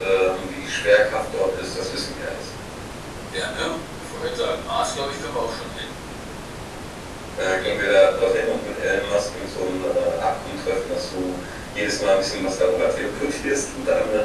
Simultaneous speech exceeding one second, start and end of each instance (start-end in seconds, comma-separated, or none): none